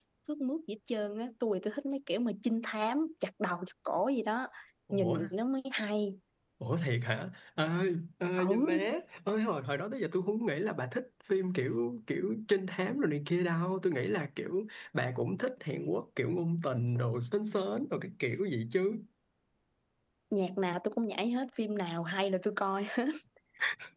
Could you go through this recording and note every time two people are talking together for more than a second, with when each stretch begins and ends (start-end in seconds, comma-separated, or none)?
none